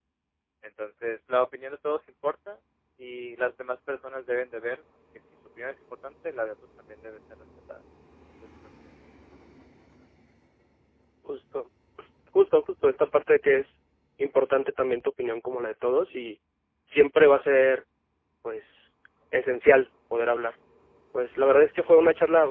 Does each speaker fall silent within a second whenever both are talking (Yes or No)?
Yes